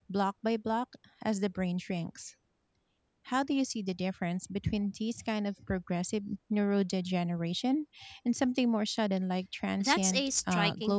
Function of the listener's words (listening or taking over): taking over